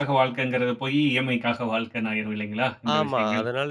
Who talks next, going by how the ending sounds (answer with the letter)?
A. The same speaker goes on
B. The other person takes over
B